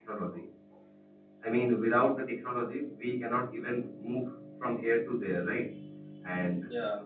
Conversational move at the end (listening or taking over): listening